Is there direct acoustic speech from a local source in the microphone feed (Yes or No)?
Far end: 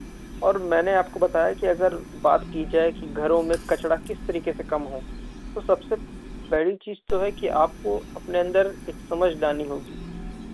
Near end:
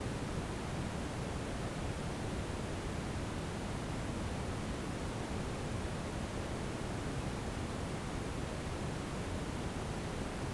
No